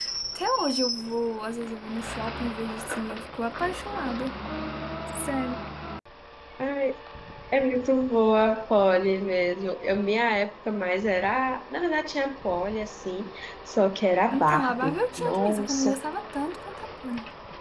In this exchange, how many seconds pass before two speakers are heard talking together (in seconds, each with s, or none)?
14.3 s